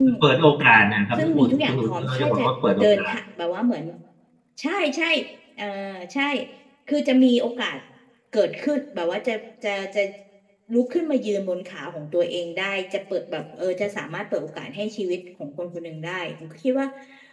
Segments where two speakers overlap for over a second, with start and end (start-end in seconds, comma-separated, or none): 1.2-2.4